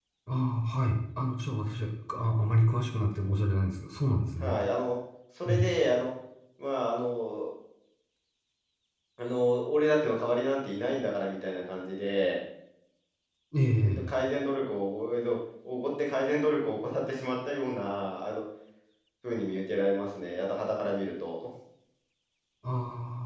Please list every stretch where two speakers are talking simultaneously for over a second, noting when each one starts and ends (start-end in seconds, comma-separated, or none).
none